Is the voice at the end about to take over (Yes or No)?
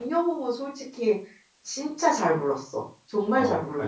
Yes